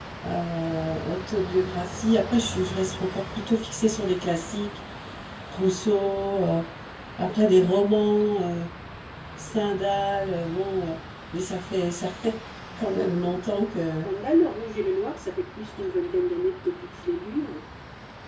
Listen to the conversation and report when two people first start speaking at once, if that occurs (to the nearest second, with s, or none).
none